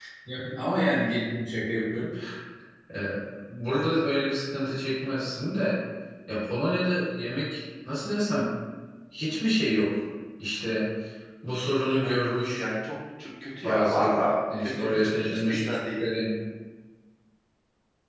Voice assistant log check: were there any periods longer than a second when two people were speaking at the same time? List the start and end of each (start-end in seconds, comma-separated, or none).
14.6-16.0